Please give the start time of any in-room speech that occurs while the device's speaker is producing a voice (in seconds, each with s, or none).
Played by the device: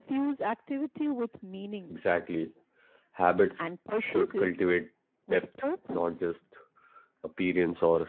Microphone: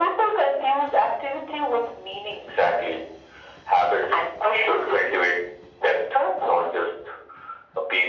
none